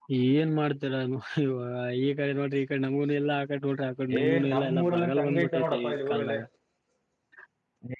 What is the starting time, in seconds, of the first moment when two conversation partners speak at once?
4.1 s

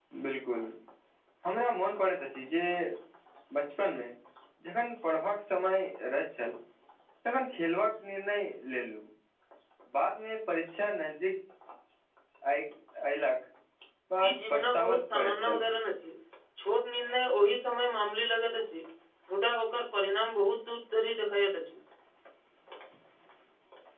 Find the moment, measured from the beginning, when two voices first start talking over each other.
14.2 s

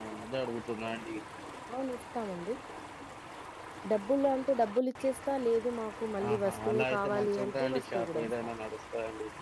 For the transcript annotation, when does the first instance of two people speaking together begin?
6.2 s

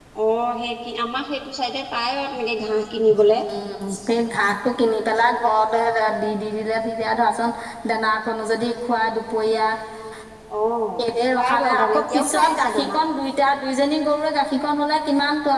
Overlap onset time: 11.3 s

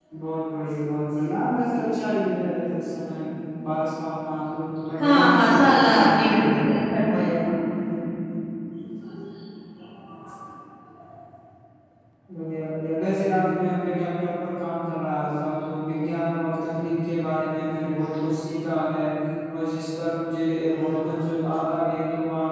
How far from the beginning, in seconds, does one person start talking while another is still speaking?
5.0 s

